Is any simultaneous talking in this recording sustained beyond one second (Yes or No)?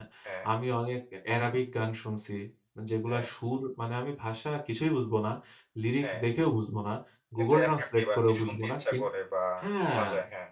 Yes